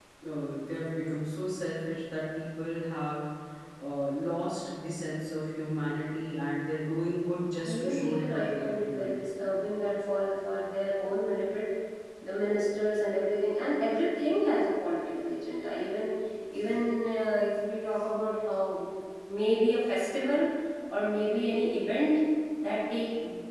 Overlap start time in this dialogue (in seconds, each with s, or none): 7.6 s